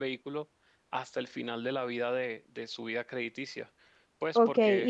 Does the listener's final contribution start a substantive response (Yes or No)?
Yes